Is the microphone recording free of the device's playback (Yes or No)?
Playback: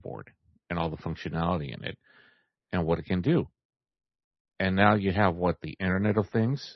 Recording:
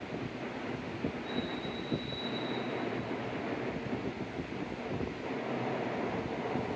Yes